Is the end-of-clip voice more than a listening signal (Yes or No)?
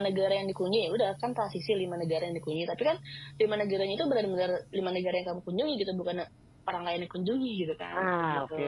Yes